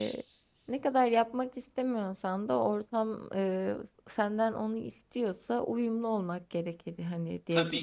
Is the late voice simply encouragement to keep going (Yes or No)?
No